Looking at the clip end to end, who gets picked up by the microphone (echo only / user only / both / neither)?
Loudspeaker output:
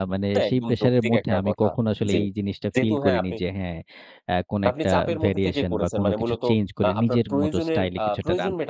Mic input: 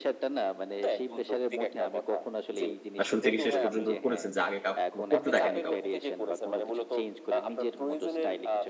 both